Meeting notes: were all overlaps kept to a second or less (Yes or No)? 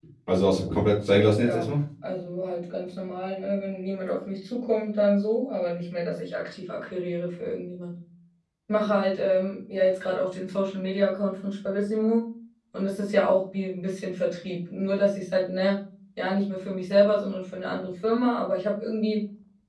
Yes